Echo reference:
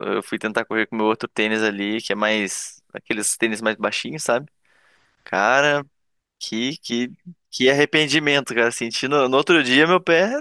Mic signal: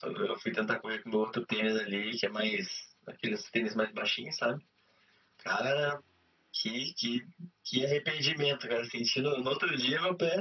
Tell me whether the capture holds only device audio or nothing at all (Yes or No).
Yes